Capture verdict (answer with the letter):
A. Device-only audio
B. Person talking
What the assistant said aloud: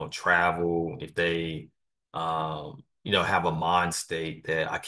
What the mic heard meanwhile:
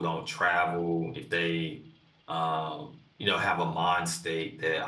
A